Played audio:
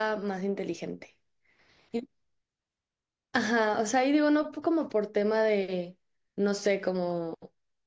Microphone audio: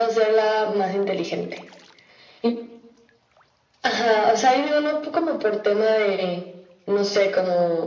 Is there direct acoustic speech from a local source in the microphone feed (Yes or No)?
No